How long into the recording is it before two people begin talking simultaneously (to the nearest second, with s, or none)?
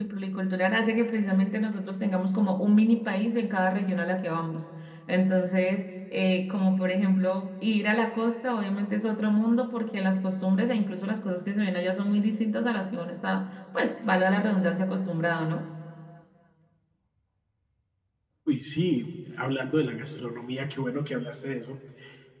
none